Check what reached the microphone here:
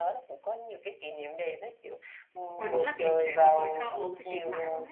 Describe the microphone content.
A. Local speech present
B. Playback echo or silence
A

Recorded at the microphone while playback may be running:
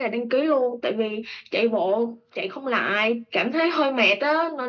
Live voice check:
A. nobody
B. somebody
A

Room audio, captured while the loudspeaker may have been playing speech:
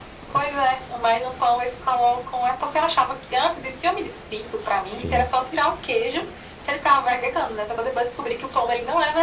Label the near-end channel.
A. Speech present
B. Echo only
A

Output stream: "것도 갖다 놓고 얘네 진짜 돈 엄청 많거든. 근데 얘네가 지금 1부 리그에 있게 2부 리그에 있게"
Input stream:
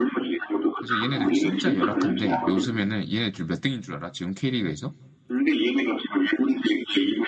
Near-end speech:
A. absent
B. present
B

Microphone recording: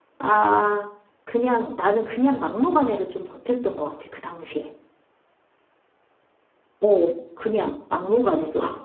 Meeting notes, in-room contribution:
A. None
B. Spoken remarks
A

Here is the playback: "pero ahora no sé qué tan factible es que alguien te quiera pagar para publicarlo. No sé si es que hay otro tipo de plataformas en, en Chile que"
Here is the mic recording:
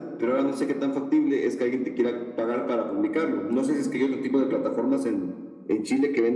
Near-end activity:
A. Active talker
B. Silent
B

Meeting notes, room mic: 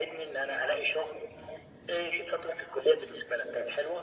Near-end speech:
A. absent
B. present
A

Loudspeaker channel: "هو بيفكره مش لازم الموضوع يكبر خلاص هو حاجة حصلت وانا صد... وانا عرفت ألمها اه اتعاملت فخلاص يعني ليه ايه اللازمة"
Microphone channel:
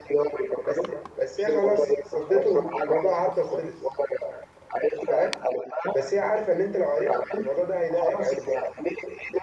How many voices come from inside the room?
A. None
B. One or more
B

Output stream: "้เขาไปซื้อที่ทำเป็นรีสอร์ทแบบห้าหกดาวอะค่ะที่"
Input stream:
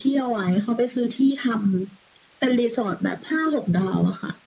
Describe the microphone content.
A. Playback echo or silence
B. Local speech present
A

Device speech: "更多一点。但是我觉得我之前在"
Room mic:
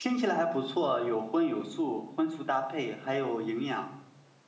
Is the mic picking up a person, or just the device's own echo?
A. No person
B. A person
B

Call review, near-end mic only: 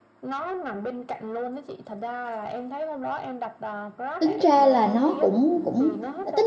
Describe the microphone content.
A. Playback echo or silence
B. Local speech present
B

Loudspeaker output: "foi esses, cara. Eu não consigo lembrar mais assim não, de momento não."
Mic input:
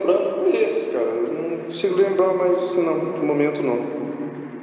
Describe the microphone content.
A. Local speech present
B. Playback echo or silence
B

